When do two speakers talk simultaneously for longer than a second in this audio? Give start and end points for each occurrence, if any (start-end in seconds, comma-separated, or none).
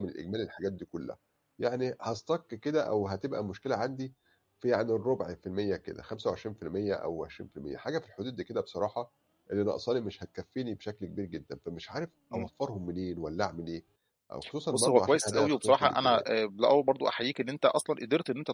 14.7-16.2